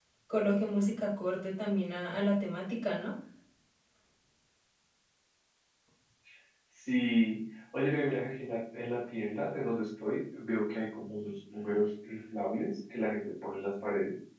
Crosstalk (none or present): none